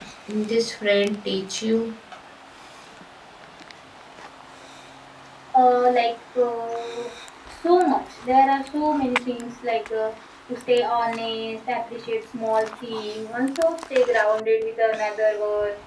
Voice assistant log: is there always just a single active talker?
Yes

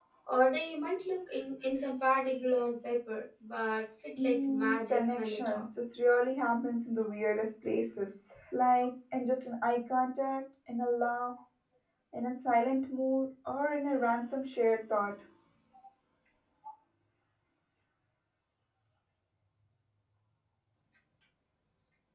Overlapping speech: Yes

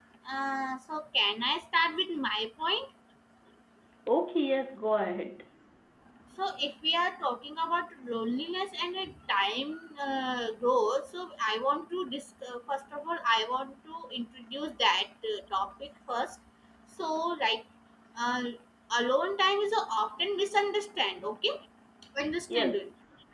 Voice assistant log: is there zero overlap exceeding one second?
Yes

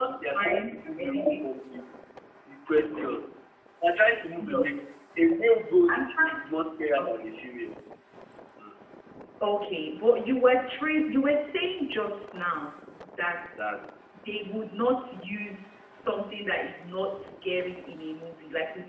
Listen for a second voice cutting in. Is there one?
Yes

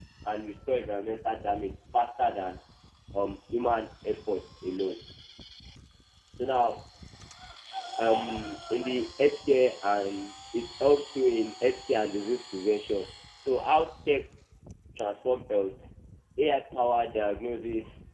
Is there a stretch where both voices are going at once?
No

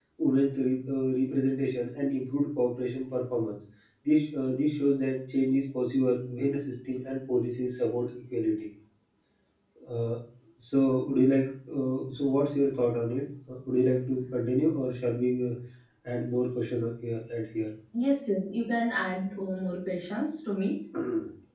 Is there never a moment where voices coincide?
Yes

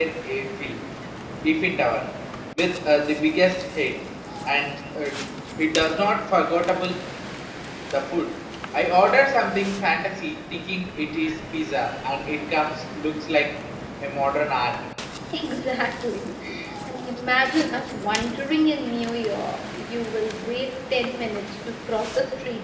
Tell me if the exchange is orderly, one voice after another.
Yes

